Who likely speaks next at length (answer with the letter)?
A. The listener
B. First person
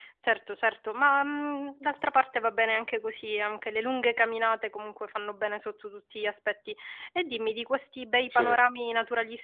B